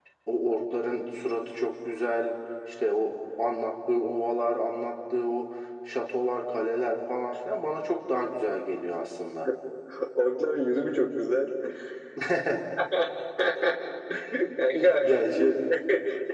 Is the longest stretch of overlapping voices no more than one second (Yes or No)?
Yes